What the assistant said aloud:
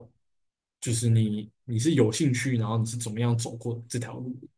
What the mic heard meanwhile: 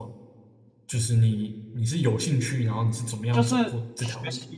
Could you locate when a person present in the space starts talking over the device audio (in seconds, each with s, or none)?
3.3 s